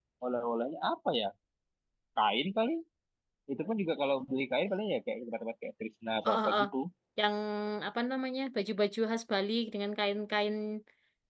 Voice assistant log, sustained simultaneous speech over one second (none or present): none